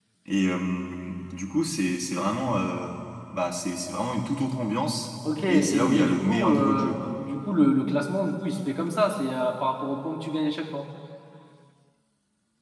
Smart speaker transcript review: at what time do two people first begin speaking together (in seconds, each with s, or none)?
5.2 s